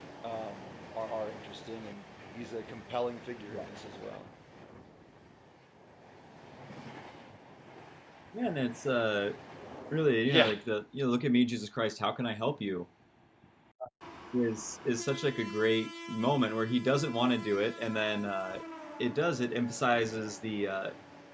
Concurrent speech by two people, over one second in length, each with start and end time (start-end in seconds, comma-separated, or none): none